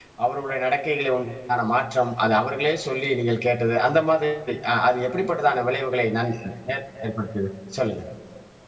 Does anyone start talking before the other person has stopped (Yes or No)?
No